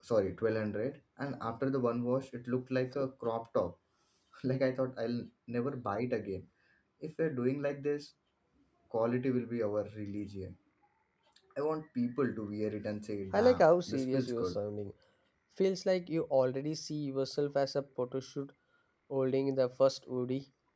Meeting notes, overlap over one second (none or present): present